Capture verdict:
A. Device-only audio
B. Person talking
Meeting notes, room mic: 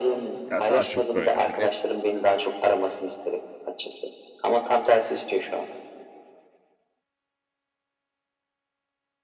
B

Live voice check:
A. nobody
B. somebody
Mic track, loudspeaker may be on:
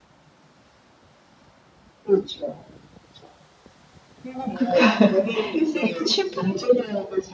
B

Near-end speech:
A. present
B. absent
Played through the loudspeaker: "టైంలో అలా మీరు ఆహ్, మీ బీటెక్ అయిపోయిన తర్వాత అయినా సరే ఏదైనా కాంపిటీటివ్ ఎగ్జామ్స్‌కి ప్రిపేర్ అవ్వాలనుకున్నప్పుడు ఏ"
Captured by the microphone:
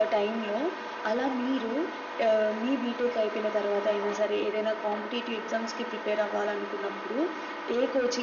B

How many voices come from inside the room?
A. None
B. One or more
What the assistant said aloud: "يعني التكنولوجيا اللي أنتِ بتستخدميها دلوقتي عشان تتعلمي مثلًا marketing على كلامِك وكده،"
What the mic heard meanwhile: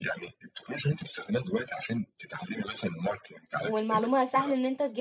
B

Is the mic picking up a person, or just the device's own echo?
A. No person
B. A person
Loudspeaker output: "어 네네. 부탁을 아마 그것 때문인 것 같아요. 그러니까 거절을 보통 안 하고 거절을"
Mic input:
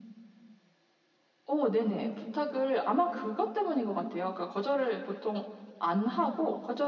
A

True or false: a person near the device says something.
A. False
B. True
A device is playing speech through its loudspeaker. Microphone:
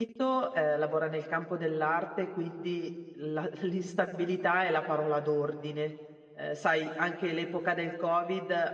B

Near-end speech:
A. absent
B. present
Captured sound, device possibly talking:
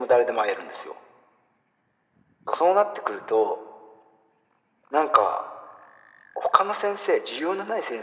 A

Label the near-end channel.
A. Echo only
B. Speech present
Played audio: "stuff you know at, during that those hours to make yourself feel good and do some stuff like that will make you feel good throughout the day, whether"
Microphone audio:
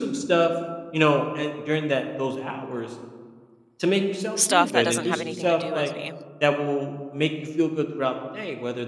B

